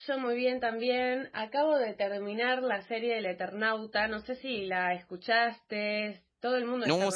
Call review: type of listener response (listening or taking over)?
taking over